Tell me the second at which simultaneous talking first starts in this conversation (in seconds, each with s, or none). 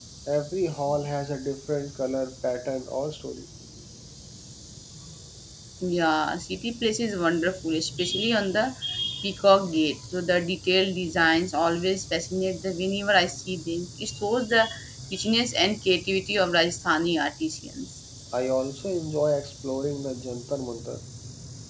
none